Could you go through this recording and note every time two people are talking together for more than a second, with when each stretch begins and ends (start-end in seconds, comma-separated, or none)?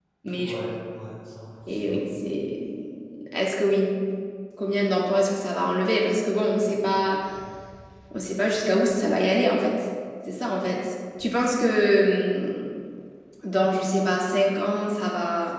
none